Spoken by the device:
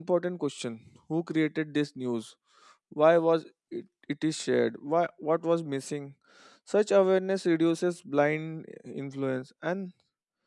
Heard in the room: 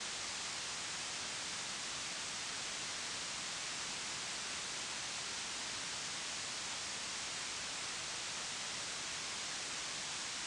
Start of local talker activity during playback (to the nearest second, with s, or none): none